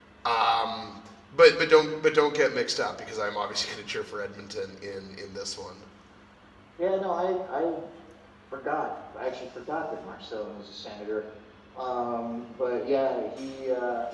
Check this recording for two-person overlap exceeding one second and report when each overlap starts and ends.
none

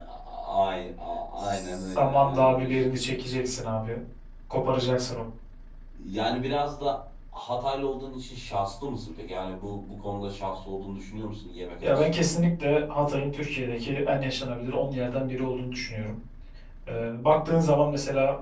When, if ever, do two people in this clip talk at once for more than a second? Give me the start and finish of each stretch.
1.4-3.2

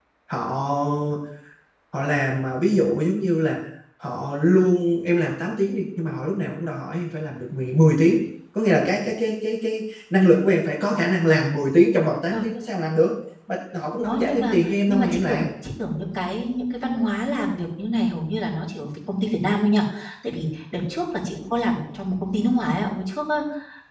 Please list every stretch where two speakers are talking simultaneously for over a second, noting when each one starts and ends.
14.0-15.4

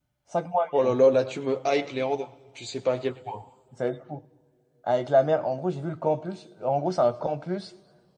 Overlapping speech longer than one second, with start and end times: none

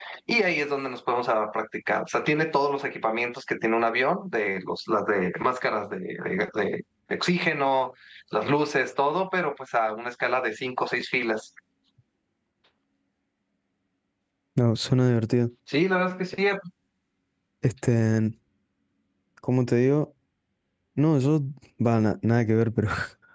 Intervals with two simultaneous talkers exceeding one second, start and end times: none

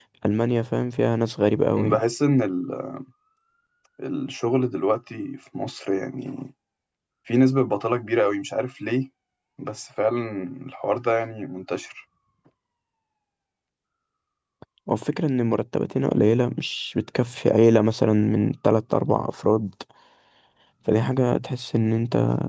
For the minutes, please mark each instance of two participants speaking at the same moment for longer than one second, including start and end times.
none

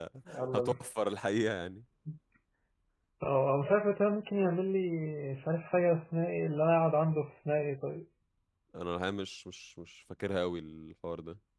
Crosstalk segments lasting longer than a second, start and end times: none

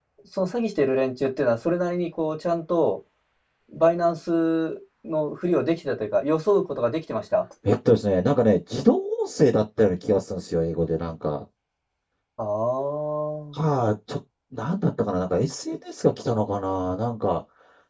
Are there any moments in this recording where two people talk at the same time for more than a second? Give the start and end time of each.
none

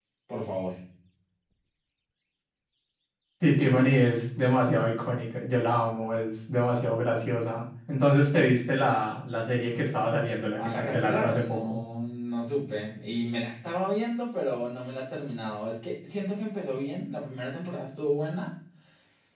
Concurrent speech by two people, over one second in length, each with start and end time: 10.6-11.8

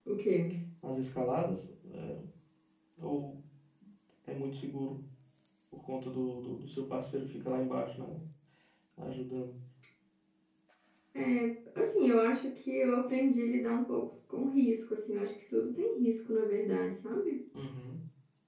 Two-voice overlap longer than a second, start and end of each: none

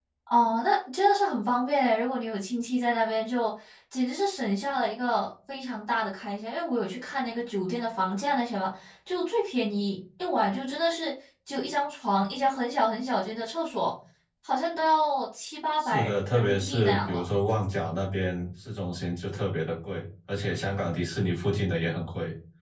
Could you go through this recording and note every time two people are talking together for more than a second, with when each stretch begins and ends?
15.8-17.2

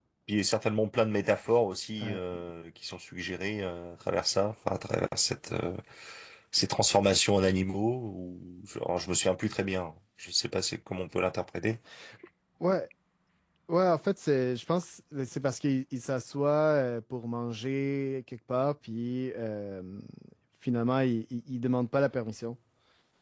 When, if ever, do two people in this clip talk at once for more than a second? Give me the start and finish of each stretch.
none

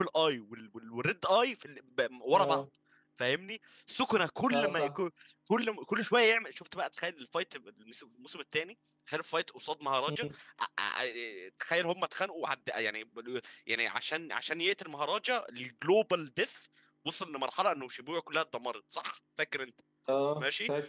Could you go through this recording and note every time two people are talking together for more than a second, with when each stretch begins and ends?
none

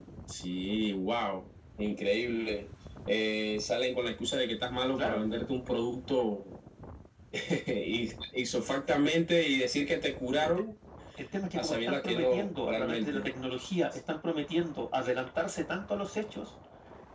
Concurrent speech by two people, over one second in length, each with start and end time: 11.6-13.3

